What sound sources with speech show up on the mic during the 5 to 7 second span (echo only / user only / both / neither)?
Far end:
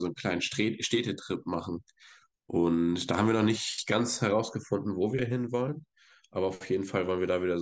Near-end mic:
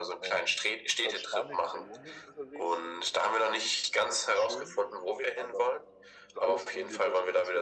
both